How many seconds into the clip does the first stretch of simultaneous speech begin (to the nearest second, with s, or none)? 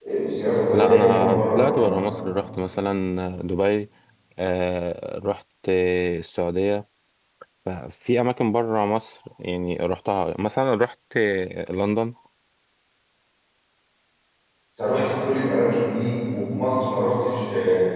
1 s